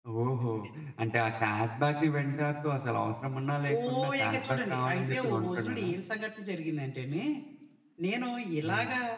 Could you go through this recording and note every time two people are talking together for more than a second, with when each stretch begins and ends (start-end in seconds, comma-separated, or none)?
3.8-5.9